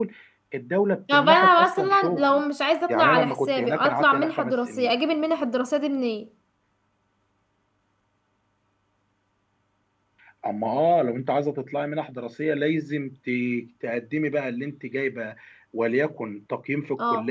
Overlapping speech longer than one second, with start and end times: 1.1-2.4, 2.9-4.9

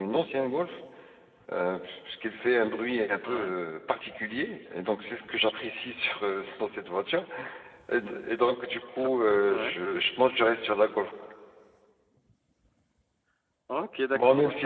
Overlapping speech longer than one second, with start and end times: none

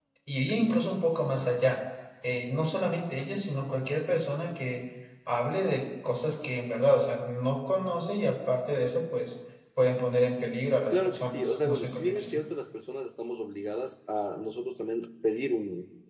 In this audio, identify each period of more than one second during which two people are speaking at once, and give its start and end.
10.9-12.4

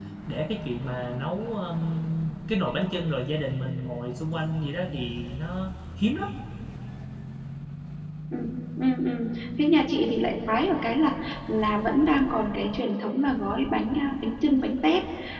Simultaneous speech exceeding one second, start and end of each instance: none

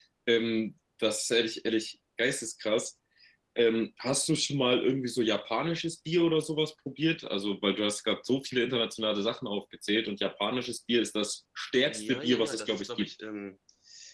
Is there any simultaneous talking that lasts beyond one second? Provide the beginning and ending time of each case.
11.9-13.1

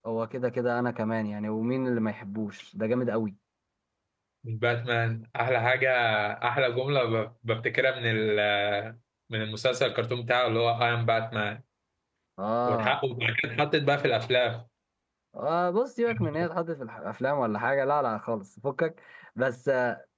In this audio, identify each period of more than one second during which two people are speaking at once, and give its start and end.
none

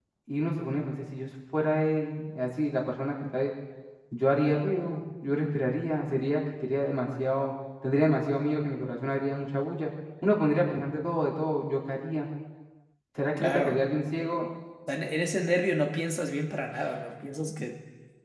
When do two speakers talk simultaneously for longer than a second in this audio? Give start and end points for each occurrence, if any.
none

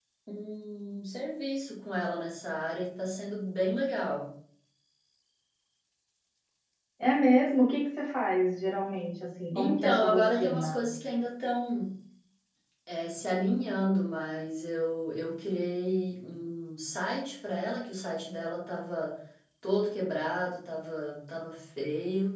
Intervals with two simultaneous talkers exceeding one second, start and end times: 9.6-10.8

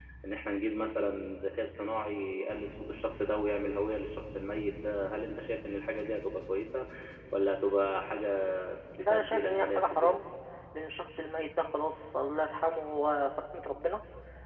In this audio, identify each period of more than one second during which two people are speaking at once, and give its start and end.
9.0-10.2

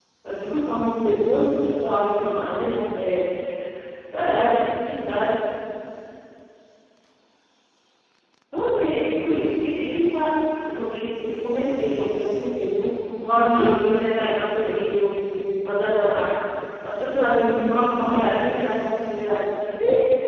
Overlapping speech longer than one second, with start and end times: 13.3-14.7

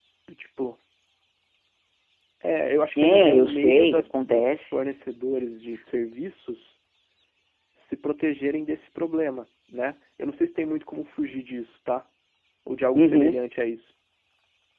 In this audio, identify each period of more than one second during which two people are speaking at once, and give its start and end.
3.0-4.6

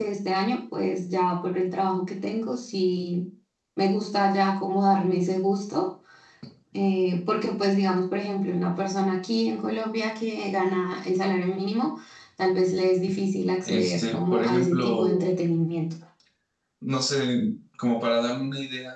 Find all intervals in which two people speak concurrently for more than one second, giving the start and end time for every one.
13.6-15.3

